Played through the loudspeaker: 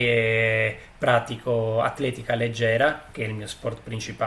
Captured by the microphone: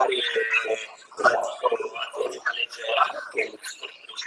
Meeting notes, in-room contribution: none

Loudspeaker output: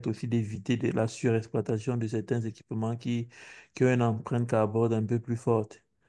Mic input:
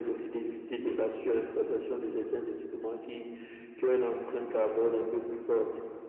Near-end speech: none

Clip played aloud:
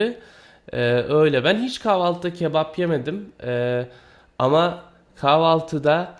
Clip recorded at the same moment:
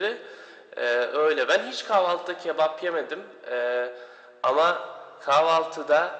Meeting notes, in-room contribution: none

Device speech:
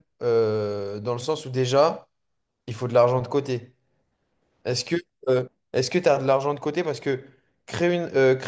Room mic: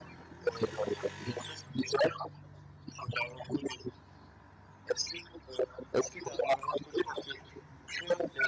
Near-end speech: none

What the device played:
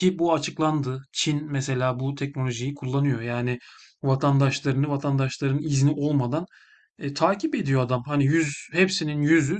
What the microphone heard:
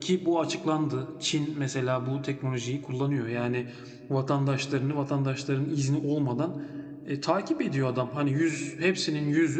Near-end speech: none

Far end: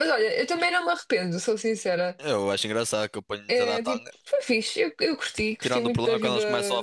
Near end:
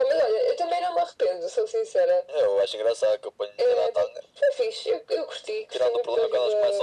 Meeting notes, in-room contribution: none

